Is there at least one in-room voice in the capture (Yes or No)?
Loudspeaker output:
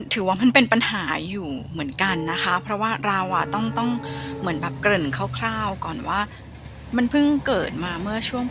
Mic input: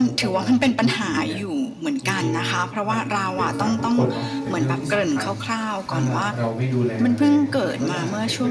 Yes